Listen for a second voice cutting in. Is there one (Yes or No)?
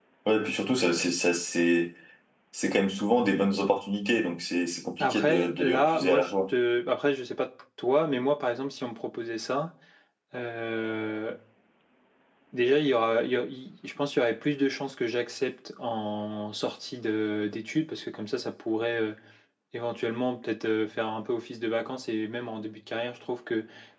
Yes